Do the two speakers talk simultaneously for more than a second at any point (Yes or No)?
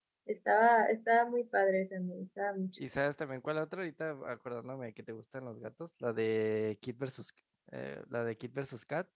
No